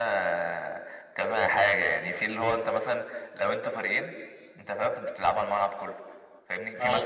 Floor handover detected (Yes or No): No